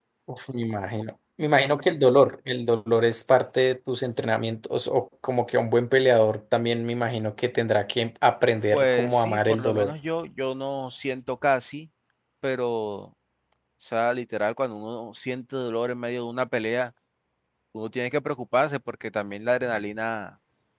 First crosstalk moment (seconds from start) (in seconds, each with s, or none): 8.7 s